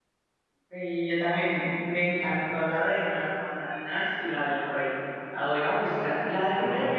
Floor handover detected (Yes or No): No